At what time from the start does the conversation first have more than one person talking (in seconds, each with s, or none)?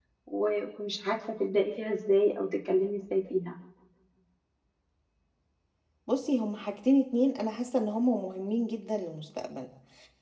none